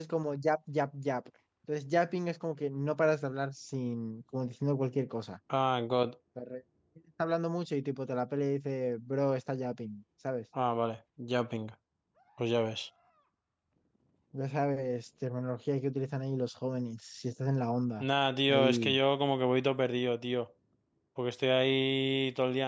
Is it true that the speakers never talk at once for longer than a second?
Yes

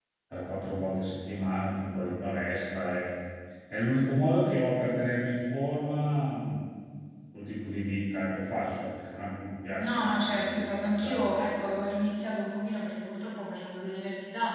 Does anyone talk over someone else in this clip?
Yes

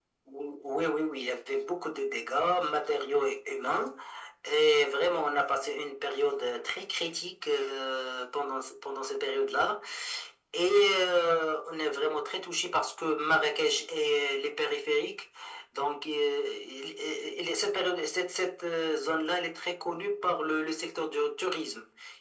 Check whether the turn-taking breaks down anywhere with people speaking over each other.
No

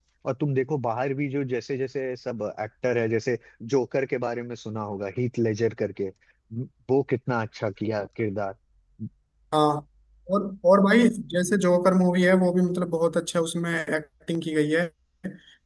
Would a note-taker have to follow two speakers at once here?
No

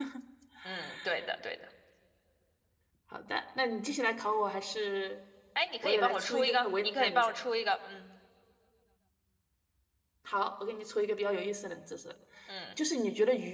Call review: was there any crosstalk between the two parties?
Yes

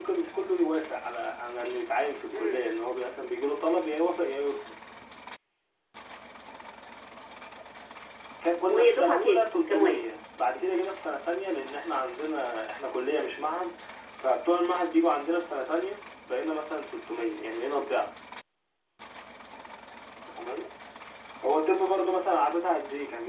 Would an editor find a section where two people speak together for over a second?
Yes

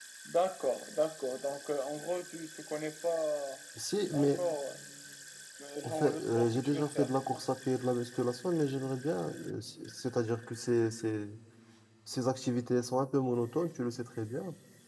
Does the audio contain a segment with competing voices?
Yes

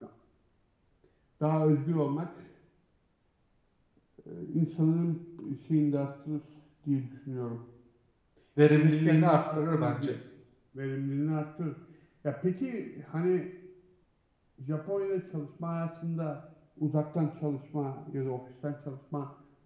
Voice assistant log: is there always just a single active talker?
No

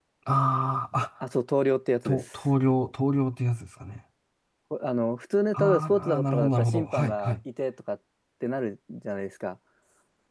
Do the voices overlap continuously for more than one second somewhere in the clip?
Yes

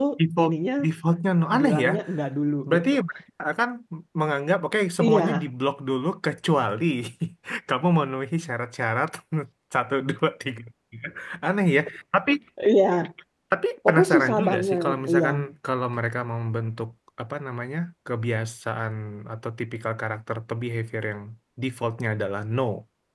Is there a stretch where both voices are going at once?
Yes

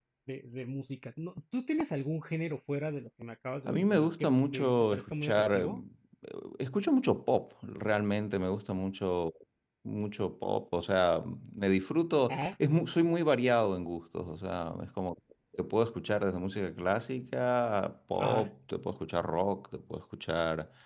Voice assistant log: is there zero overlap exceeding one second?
No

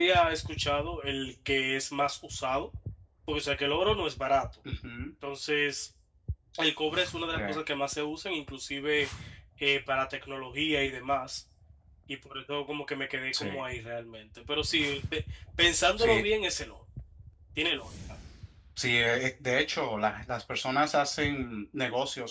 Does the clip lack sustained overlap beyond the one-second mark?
Yes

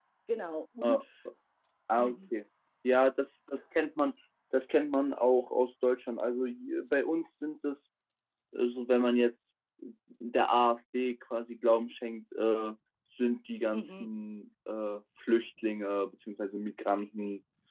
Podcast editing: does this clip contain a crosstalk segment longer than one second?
No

